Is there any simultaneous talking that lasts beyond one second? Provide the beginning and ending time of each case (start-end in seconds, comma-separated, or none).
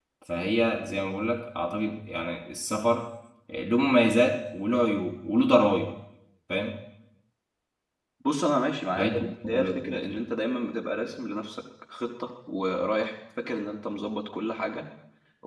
8.9-10.2